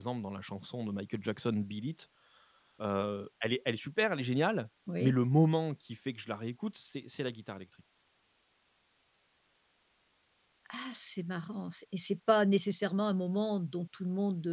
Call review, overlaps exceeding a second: none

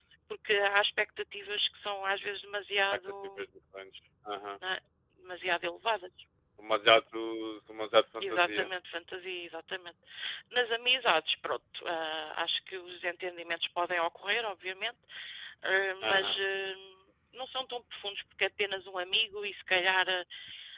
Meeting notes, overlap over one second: none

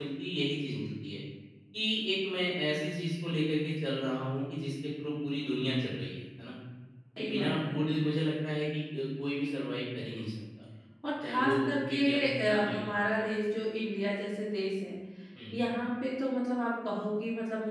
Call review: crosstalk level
present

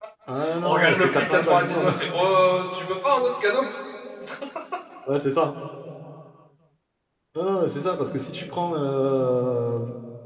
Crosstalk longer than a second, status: present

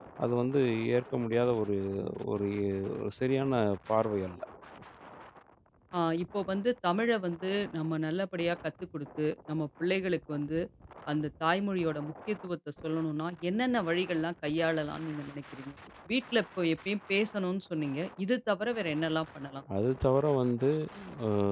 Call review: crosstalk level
none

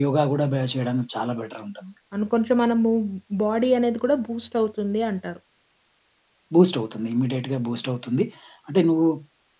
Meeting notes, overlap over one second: none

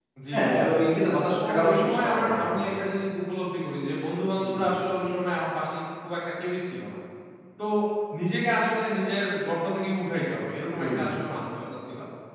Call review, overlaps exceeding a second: present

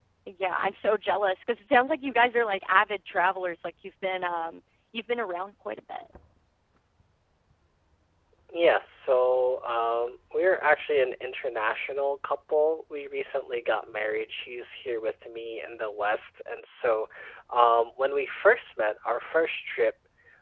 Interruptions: none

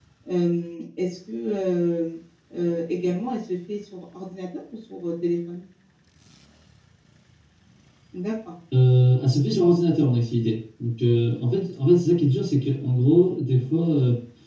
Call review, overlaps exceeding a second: none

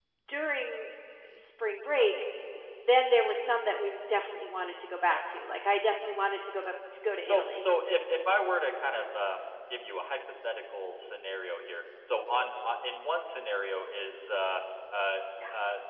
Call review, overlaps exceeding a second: none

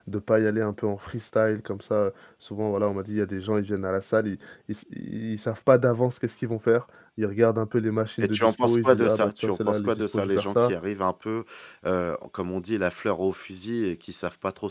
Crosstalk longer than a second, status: present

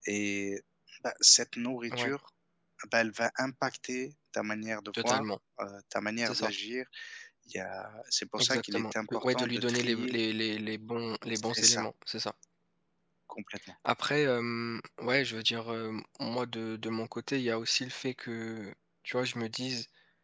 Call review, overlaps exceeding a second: present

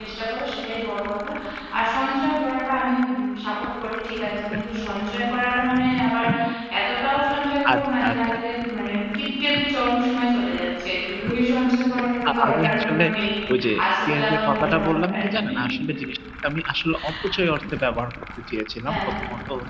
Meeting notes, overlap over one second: present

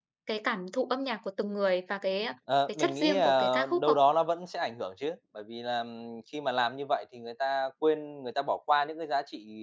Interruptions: present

